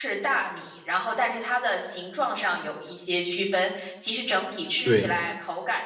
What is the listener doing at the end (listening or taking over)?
listening